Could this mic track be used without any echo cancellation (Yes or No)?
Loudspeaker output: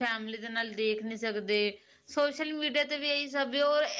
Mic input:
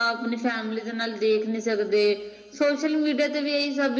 No